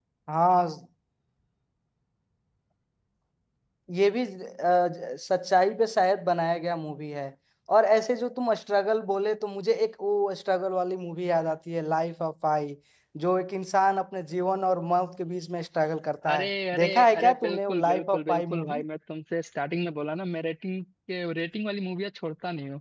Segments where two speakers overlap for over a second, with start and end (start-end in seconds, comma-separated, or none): 16.3-18.8